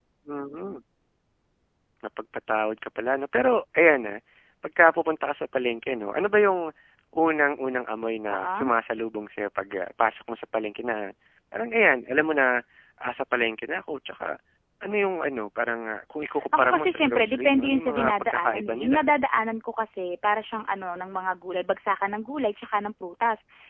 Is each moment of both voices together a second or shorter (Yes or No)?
No